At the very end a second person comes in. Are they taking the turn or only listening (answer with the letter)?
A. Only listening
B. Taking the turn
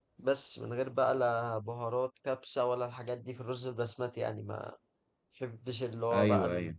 A